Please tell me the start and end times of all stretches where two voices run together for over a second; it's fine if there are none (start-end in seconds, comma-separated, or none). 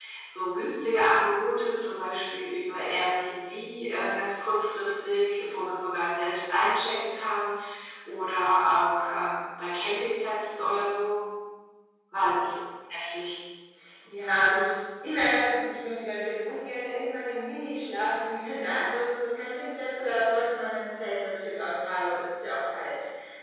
none